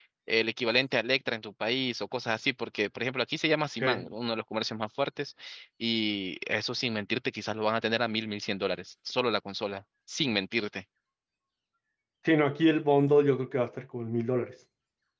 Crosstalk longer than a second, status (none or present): none